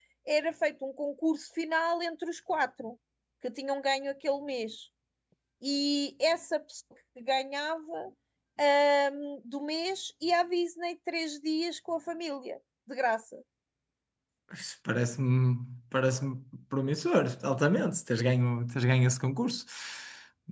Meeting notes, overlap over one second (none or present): none